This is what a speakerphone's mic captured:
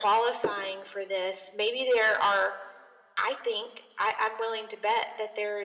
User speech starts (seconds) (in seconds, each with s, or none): none